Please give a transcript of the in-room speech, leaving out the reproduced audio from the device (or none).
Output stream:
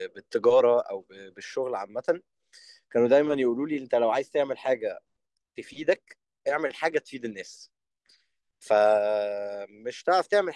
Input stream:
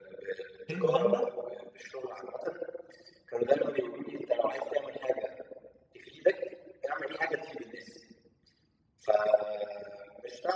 فنلندا